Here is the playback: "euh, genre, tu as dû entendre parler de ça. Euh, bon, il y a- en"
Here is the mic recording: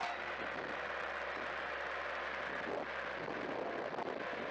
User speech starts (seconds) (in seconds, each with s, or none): none